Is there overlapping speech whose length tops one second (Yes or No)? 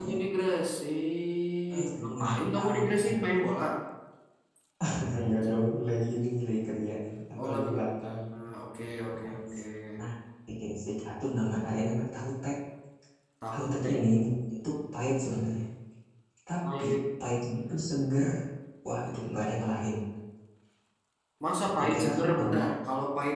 Yes